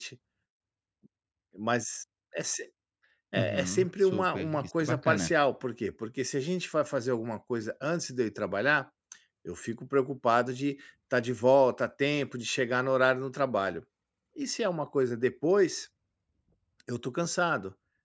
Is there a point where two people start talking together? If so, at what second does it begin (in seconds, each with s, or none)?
3.4 s